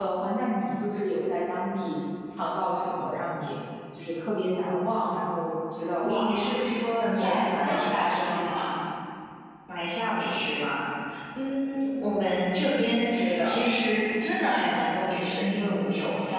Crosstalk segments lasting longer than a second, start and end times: 7.0-8.4

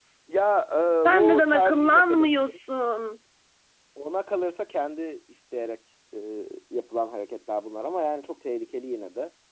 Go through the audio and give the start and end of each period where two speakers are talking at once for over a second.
1.1-2.6

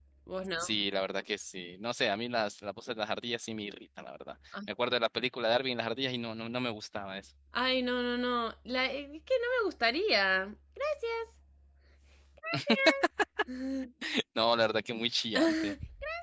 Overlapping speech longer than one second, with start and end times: none

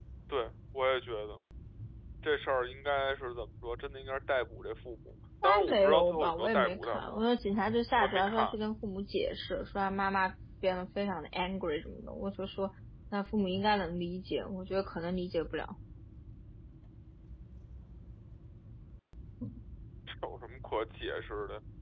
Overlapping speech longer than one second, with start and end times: 5.4-7.2

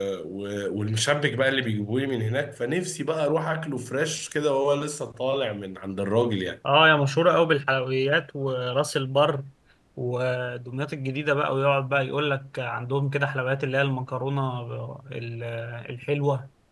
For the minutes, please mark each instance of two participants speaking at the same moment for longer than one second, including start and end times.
none

